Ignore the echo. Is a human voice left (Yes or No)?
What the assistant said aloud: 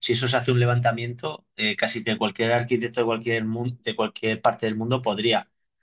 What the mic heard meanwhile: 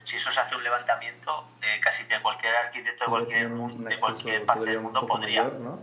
Yes